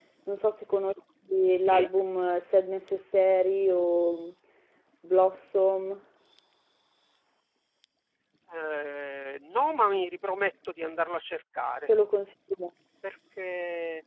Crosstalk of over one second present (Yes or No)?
No